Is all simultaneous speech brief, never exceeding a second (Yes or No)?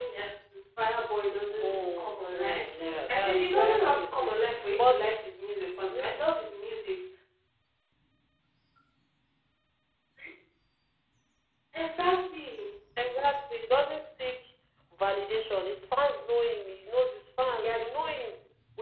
No